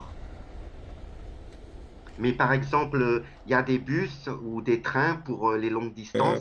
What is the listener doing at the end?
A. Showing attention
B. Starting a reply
B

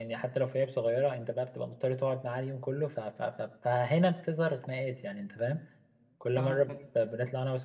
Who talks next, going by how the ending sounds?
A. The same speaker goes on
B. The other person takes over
A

